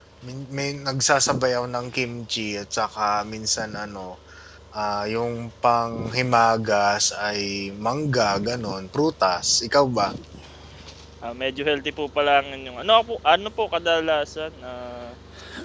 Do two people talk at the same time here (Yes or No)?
No